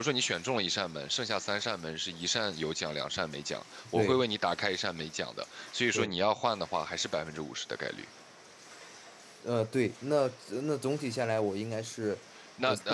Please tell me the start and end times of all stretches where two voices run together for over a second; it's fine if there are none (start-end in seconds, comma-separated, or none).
none